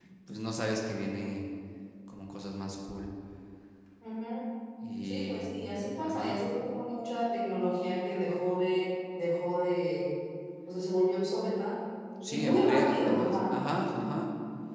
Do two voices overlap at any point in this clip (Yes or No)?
Yes